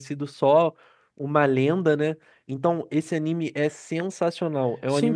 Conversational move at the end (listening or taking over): taking over